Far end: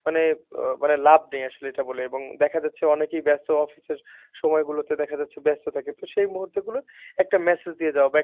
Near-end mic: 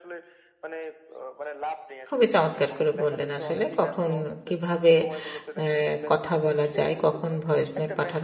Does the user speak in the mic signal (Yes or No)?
Yes